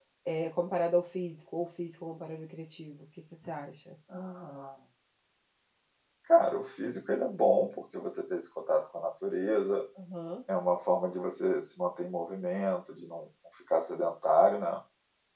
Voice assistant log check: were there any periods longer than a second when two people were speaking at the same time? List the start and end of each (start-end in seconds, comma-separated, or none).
none